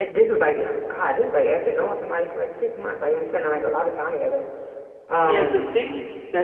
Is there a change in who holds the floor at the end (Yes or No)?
Yes